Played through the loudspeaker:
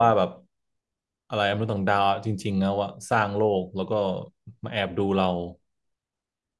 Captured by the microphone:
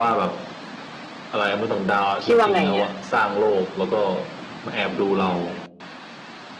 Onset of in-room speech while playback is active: 2 s

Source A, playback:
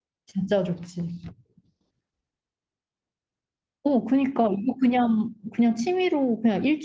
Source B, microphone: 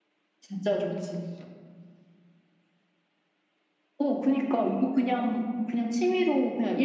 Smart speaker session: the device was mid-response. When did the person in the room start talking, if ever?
none

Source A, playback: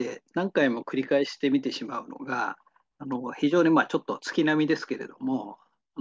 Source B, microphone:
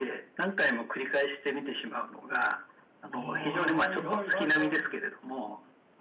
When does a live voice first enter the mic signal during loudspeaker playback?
3 s

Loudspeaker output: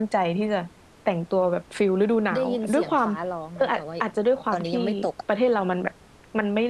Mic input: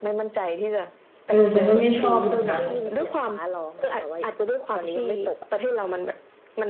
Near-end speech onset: 1 s

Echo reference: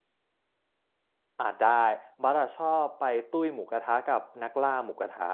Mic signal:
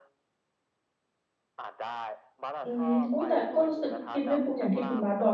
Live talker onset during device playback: 3 s

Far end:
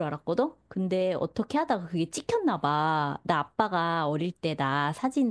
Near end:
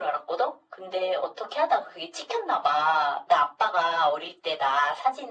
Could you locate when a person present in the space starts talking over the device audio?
none

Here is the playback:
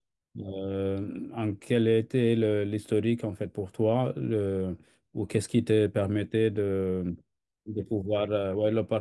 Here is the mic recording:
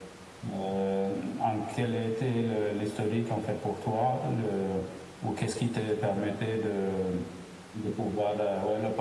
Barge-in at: none

